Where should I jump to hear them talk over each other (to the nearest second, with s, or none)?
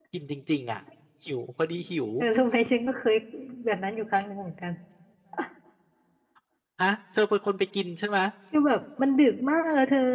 none